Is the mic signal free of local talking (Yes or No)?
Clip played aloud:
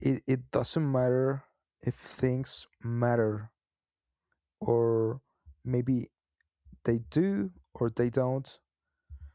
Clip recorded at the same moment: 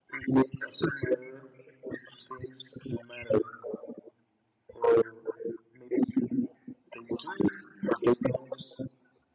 Yes